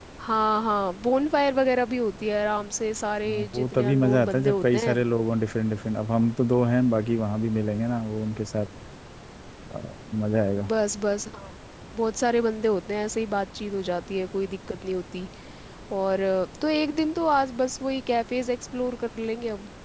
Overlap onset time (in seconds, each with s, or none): 3.2 s